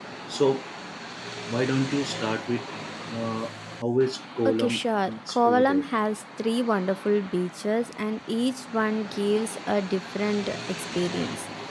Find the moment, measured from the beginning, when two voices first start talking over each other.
4.4 s

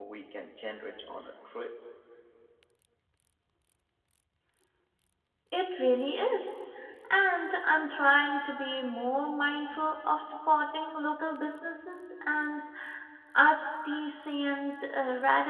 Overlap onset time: none

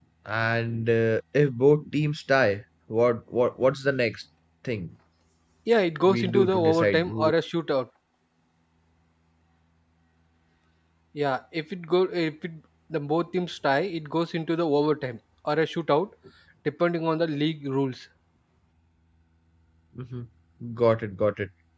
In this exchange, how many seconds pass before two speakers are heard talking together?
6.0 s

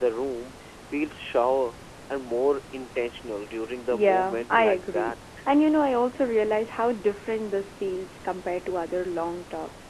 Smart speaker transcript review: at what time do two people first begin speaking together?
3.9 s

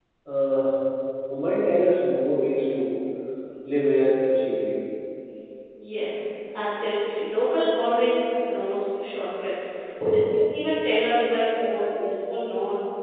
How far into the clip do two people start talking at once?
none

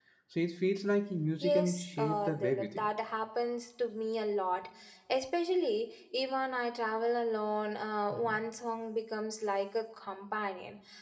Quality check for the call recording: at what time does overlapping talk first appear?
1.4 s

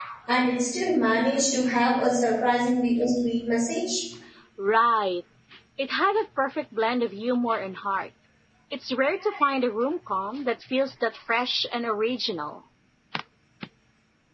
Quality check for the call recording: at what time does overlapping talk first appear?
none

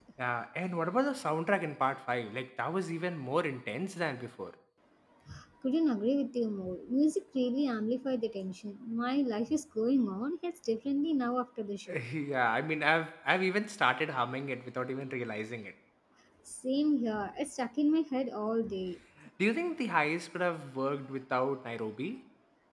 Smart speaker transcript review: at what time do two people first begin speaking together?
none

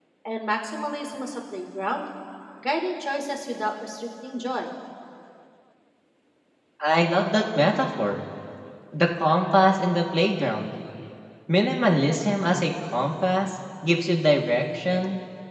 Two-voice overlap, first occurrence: none

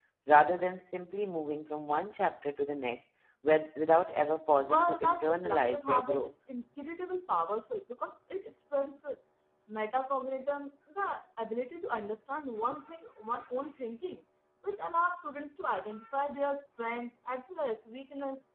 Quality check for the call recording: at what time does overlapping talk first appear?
4.7 s

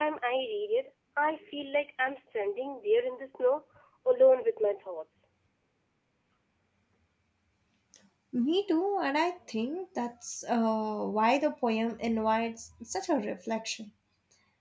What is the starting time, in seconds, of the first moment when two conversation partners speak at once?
none

